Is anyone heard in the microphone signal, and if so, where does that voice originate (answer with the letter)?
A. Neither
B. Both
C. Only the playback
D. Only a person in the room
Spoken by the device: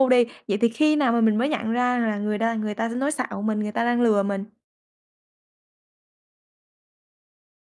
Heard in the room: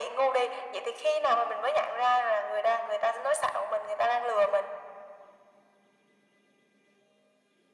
C